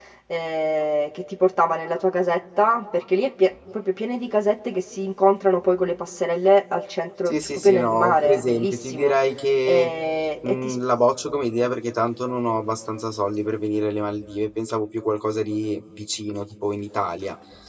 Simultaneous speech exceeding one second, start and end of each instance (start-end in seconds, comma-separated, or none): 7.3-9.1